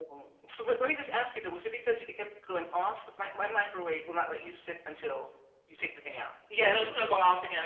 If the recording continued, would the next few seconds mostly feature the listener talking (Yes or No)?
Yes